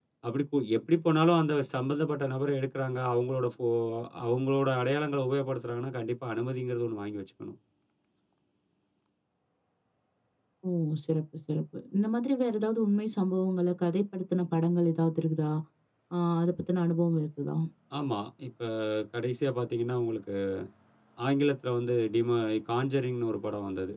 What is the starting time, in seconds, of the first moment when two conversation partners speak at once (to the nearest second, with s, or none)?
none